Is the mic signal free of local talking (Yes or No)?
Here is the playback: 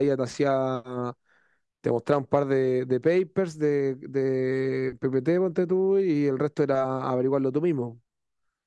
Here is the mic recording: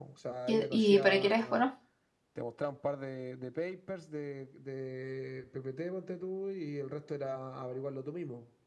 No